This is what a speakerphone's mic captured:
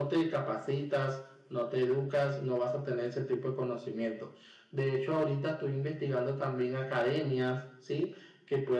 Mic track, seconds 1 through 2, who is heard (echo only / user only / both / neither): echo only